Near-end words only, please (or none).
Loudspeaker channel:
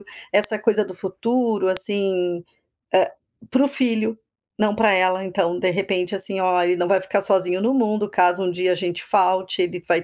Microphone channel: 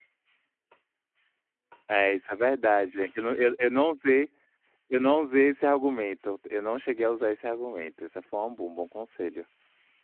É, isso é verdade, eu não eu eu não usei eu não usei esse argumento, eu não cheguei a usar esse argumento. Isso foi um bom um bom conselho.